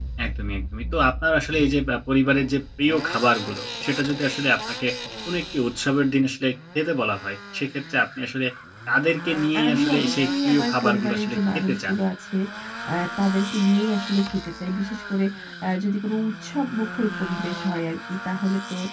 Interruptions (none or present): present